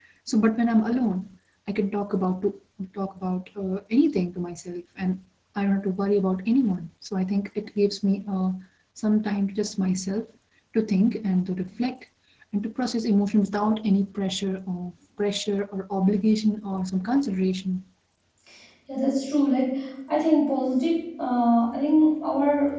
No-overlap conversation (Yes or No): Yes